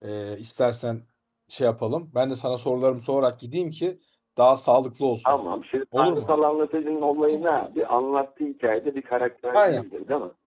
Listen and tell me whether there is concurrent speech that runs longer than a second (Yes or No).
No